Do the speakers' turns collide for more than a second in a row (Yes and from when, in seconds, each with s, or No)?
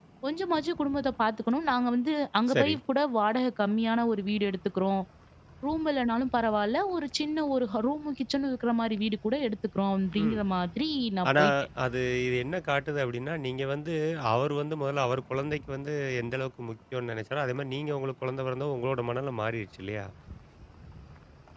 No